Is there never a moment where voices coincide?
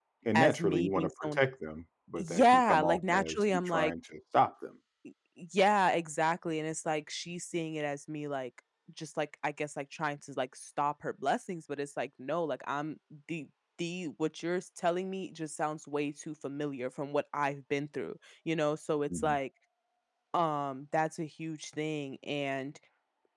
No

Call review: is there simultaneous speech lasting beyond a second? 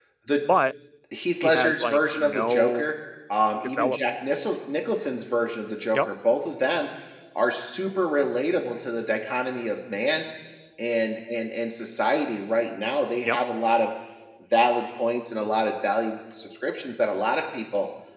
Yes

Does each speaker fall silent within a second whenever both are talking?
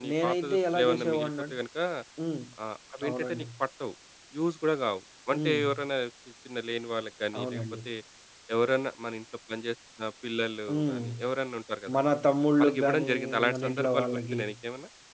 No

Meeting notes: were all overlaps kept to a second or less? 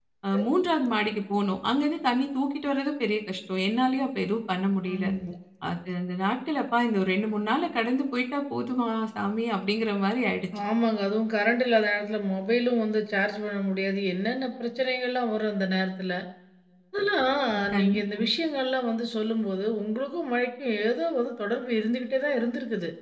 Yes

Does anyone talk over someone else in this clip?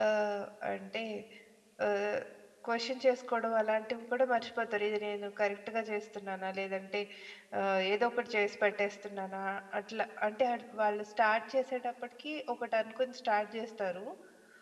No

